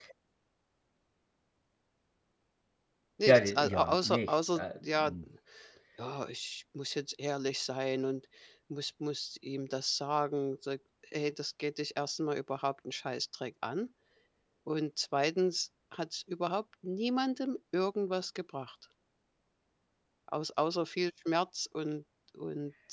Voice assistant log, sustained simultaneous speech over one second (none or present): present